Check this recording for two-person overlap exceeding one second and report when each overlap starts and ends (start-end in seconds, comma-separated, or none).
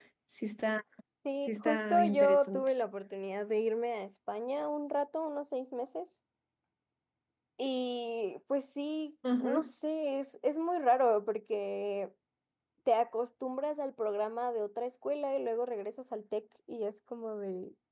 1.5-2.7